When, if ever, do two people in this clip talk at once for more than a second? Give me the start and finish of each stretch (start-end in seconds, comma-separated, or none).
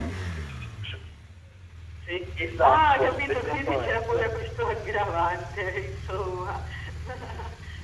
2.6-4.3